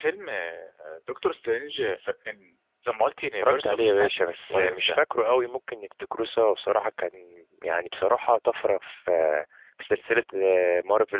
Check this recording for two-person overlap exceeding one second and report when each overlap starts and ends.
3.4-5.0

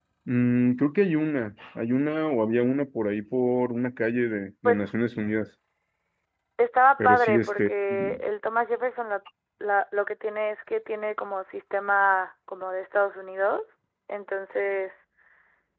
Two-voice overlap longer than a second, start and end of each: 7.0-8.2

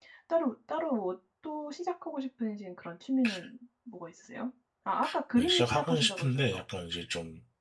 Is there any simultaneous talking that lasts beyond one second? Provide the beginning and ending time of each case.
5.4-6.6

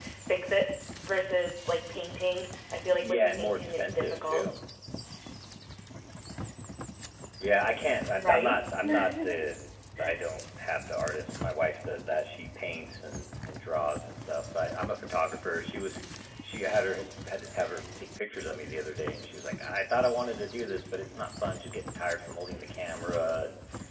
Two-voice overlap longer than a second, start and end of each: 3.0-4.4

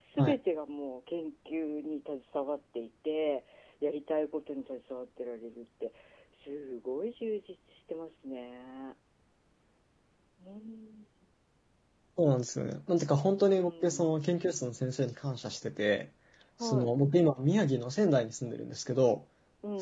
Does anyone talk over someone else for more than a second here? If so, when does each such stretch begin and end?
none

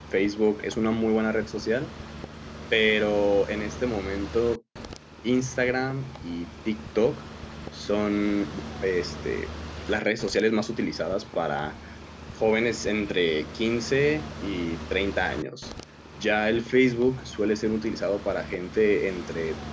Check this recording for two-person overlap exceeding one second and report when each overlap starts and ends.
none

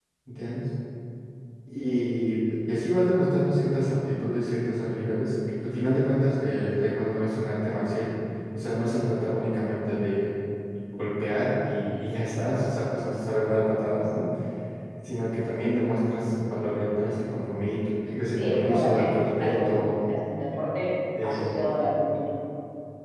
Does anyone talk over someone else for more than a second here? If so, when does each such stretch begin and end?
18.4-19.9

